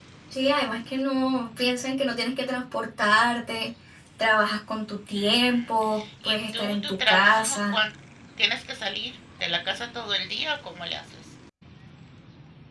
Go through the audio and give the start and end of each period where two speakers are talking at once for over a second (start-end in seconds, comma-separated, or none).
6.2-7.8